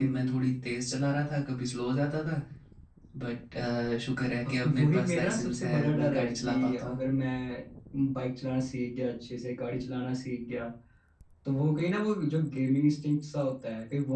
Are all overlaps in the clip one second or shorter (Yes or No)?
No